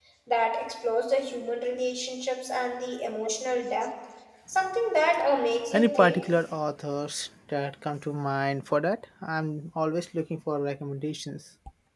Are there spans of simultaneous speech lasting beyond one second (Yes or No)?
No